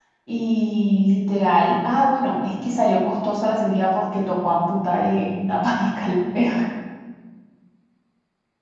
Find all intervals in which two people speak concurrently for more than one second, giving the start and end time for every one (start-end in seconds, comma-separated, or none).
none